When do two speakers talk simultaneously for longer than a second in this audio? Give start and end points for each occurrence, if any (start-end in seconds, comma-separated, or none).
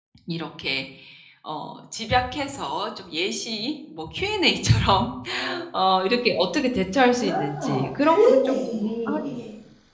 7.1-9.2